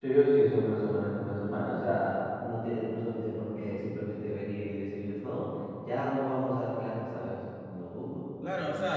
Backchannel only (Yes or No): No